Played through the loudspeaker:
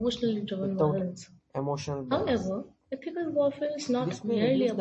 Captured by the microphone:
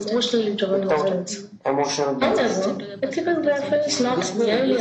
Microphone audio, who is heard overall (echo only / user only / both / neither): both